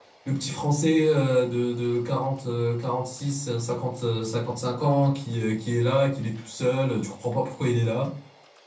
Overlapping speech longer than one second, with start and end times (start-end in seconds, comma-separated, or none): none